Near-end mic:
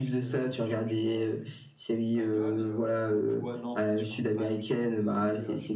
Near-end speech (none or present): present